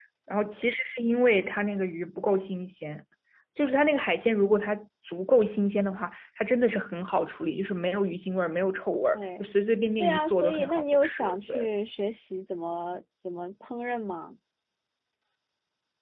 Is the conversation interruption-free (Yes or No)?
No